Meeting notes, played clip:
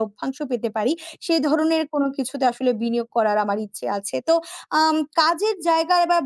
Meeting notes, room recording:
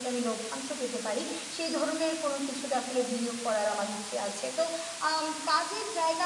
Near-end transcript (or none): none